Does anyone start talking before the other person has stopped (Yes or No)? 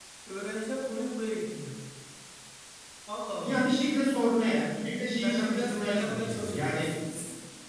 Yes